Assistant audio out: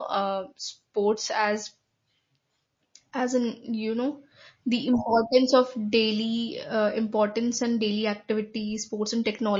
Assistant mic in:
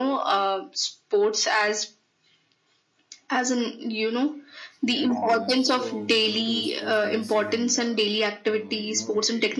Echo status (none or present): present